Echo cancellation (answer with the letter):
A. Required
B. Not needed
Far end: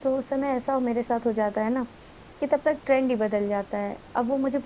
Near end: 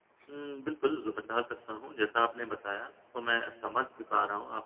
B